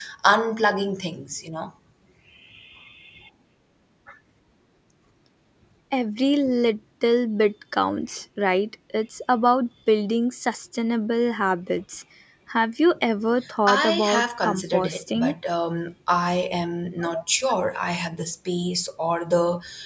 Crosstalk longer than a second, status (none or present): present